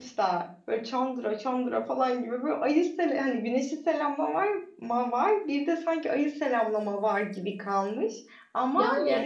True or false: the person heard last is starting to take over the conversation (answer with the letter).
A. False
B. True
A